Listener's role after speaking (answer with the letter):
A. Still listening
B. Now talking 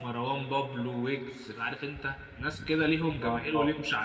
A